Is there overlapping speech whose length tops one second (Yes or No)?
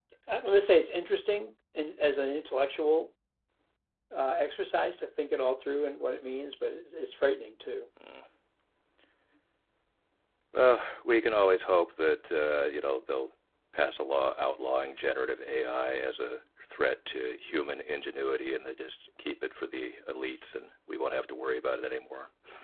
No